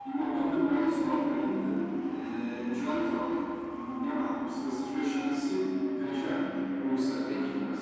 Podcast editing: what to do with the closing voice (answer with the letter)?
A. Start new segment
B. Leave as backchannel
A